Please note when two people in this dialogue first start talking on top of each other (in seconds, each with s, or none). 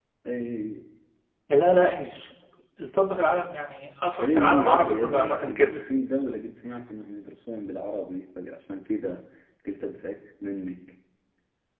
4.2 s